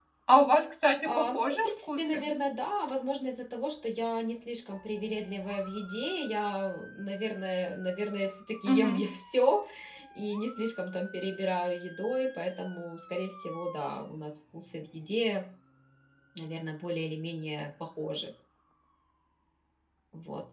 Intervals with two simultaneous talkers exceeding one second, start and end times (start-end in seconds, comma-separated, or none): 1.0-2.3